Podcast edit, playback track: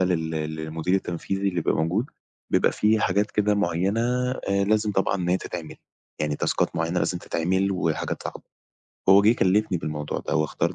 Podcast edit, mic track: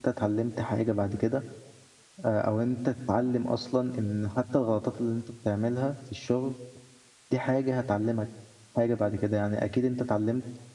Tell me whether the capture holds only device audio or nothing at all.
No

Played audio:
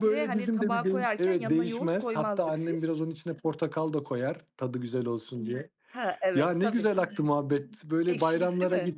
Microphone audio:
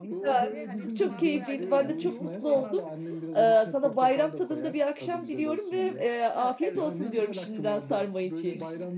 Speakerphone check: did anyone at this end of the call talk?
Yes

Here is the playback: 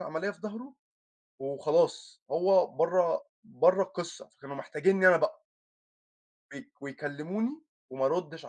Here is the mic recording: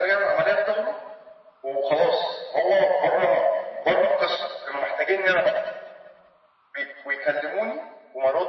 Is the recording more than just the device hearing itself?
No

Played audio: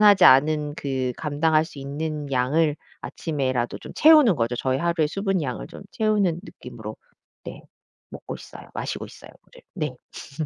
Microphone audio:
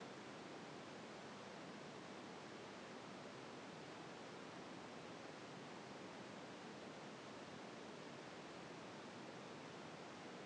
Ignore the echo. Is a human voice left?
No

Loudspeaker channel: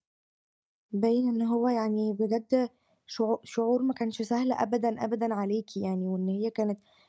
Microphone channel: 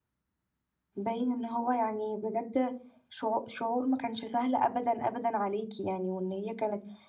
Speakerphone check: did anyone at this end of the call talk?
No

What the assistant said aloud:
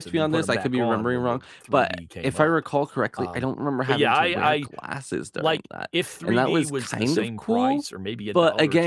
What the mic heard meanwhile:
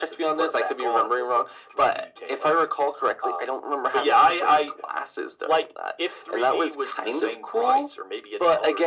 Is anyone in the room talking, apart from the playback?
No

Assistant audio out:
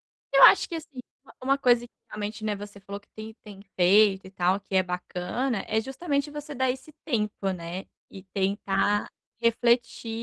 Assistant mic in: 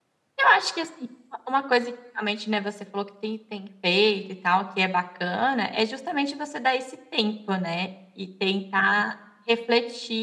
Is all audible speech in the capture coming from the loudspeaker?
Yes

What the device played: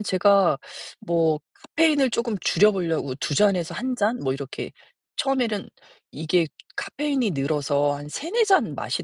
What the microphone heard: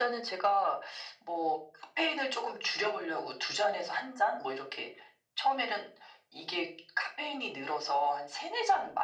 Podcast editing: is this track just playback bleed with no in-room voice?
Yes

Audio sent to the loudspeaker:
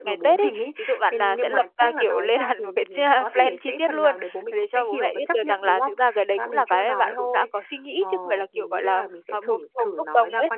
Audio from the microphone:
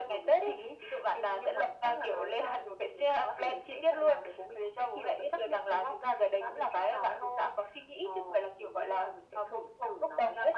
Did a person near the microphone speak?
No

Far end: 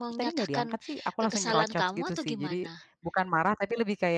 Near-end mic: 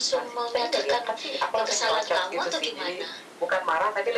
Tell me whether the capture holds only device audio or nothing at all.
Yes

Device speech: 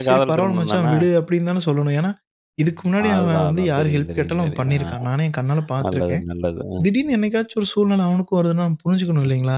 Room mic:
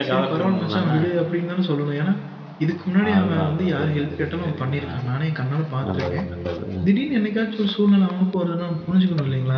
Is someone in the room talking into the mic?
No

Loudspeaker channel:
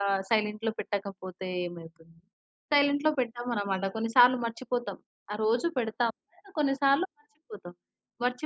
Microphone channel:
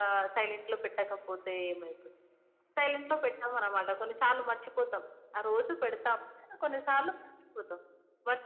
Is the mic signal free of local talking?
Yes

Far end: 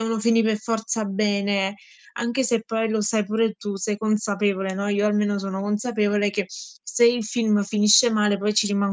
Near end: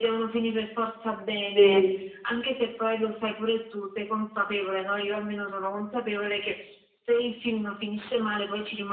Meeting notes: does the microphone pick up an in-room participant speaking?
Yes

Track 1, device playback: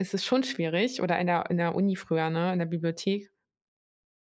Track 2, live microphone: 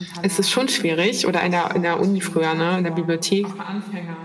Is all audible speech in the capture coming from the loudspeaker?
No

